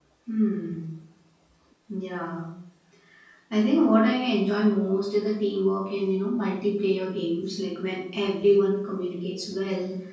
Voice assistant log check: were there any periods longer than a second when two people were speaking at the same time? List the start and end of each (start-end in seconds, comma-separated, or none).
none